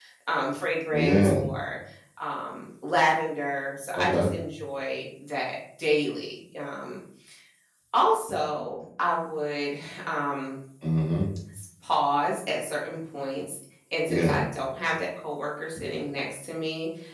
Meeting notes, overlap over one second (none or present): none